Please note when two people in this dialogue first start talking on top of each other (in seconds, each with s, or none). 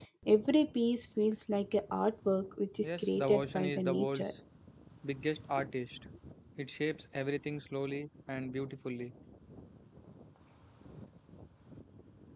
2.8 s